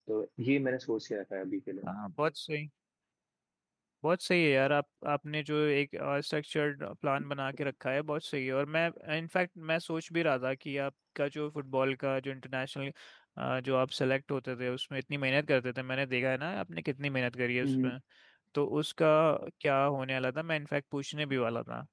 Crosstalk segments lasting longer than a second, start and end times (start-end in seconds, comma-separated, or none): none